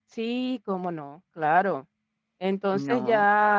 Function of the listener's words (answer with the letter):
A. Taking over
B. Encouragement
B